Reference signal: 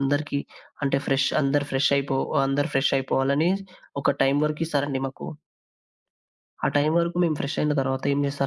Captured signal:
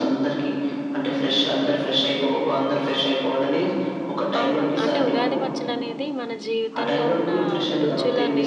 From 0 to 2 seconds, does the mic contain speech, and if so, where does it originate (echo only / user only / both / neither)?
echo only